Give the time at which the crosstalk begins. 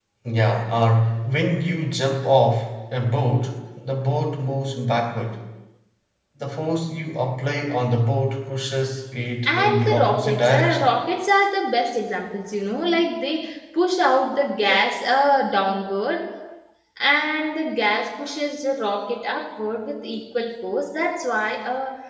9 s

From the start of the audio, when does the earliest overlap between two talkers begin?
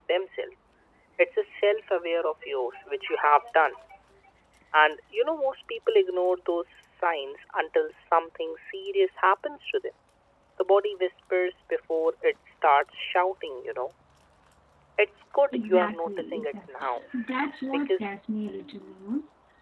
16 s

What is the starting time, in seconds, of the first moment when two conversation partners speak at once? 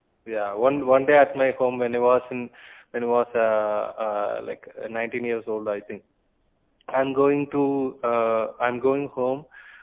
none

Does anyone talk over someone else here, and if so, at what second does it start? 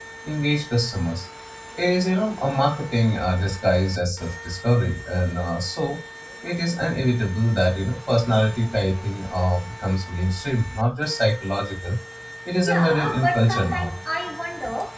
13 s

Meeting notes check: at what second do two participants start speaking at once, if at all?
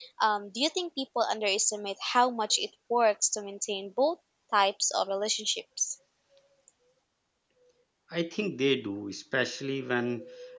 none

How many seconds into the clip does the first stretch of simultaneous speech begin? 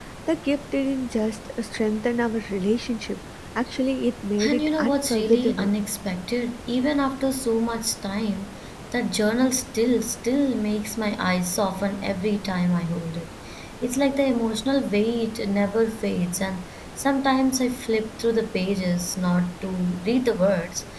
4 s

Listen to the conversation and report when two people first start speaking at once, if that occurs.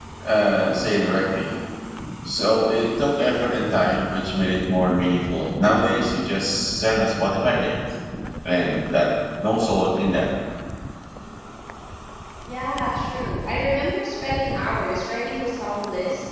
none

